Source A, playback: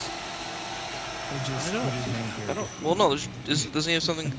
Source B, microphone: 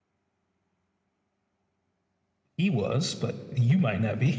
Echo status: none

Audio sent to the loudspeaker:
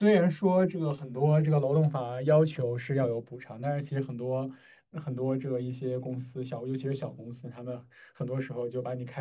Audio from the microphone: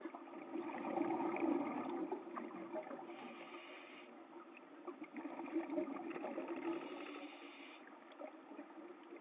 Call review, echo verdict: none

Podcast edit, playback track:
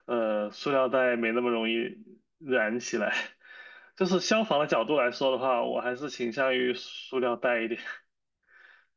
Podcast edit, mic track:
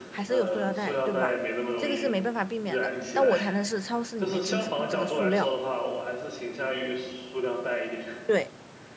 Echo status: present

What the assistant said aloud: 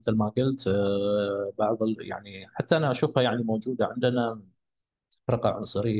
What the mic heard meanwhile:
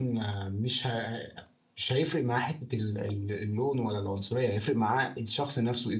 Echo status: none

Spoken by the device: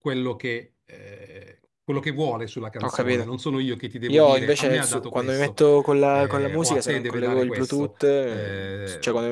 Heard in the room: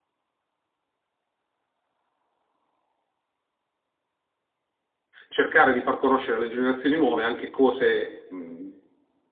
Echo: none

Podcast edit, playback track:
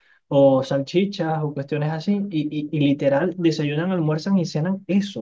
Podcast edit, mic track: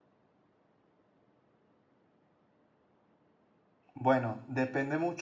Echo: none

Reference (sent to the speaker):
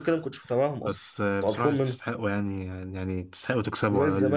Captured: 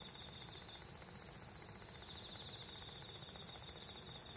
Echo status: none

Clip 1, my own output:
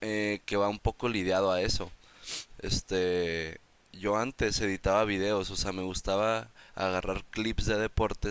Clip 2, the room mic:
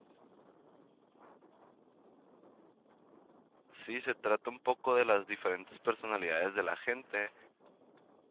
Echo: none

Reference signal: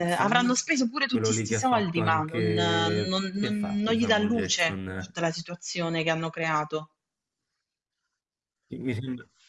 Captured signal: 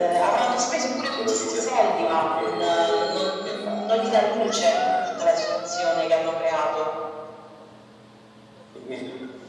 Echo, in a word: present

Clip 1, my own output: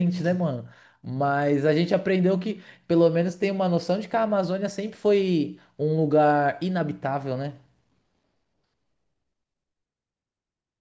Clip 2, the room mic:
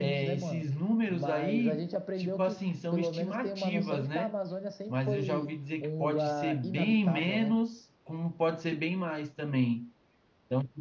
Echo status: present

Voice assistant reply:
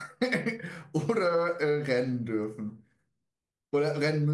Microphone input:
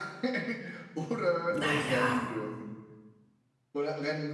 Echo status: present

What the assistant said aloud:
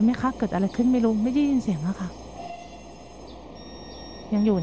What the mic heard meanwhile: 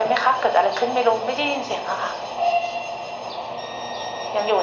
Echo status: present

